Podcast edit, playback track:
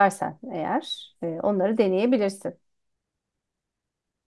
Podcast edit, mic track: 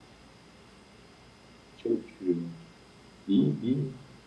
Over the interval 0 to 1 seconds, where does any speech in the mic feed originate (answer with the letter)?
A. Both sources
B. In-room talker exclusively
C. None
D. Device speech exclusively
C